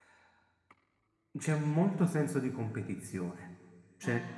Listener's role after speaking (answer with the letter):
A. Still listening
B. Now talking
A